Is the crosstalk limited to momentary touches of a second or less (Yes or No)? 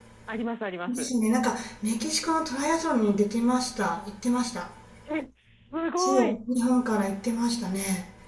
Yes